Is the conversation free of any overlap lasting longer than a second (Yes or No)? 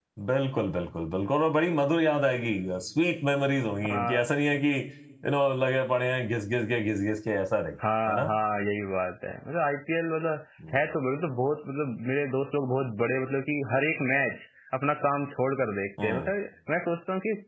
Yes